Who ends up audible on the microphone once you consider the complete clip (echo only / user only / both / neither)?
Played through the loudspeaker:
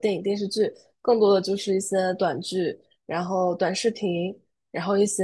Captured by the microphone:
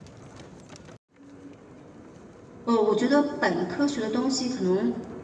user only